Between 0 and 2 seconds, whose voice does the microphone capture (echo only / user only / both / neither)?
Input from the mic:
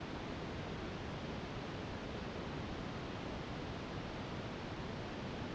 neither